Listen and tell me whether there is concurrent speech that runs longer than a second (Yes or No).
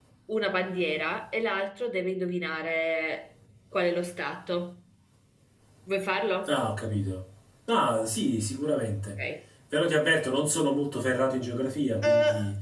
No